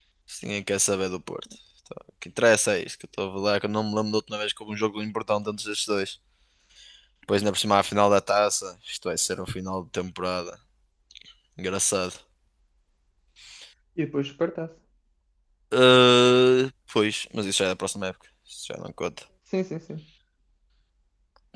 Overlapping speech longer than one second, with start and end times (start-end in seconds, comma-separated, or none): none